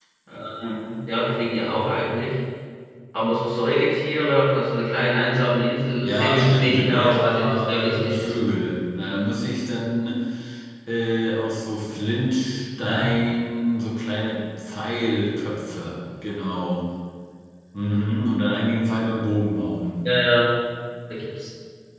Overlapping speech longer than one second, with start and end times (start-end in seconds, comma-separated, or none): 6.0-8.3